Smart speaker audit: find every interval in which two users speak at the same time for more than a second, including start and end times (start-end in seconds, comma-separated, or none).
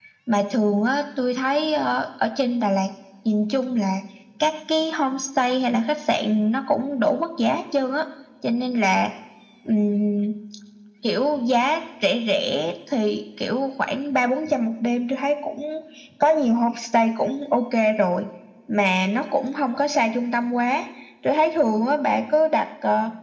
none